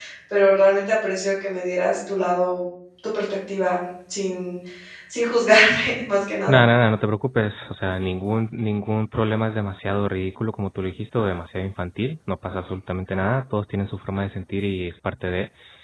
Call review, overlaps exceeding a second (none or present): none